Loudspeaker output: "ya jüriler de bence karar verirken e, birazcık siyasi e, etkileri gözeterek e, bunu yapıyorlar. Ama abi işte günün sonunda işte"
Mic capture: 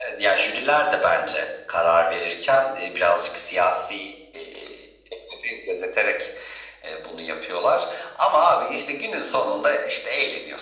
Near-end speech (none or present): none